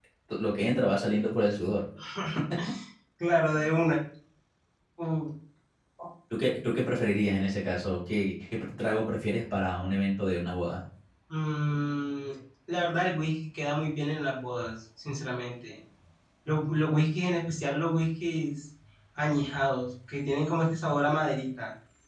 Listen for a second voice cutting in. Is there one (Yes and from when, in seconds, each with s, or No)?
No